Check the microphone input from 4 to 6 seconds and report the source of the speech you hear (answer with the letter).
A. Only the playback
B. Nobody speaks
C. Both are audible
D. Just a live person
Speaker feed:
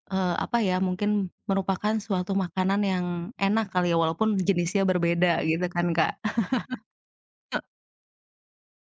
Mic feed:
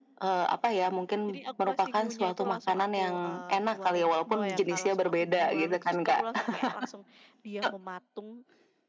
C